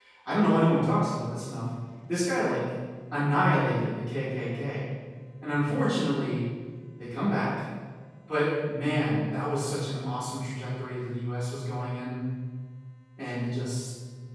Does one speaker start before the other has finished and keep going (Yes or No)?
No